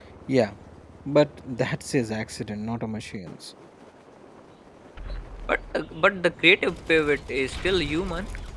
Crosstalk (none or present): none